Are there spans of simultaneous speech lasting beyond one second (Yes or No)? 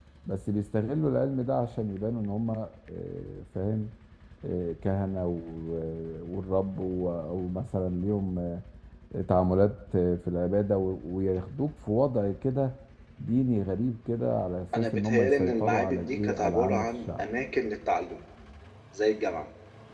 Yes